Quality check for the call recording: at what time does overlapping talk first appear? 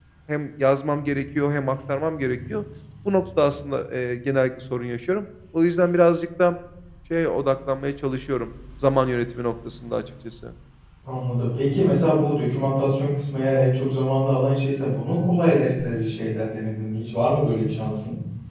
none

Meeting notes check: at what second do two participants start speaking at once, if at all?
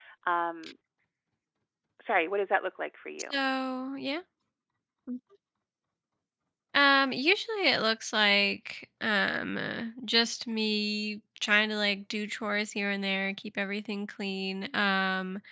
none

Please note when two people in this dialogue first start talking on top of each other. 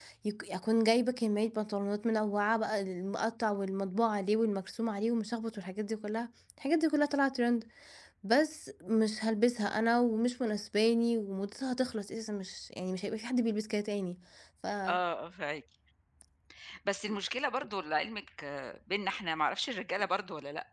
none

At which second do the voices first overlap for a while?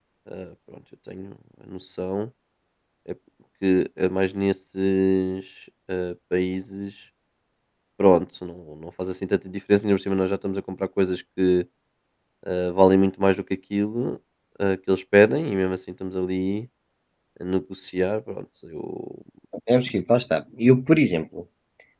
none

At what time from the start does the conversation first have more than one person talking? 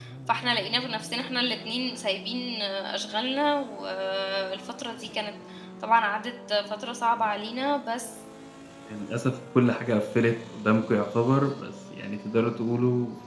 none

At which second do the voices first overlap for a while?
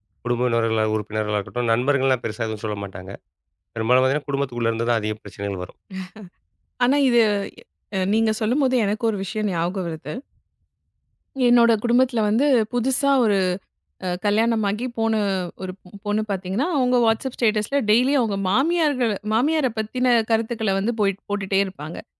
none

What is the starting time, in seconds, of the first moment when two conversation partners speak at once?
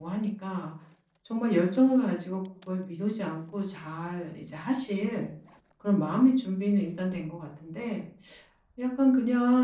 none

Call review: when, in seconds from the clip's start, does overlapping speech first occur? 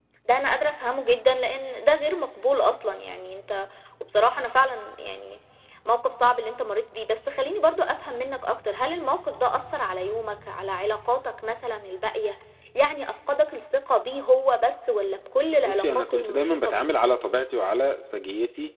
15 s

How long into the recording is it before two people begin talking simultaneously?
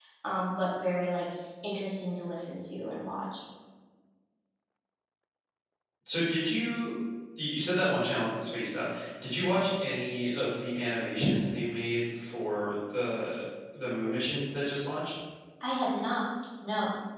none

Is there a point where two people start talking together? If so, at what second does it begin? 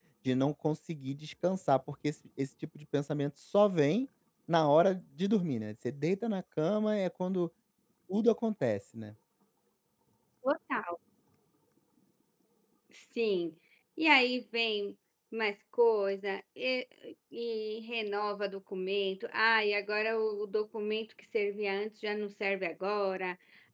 none

